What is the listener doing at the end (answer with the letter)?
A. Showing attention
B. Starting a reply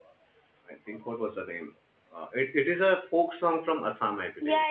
B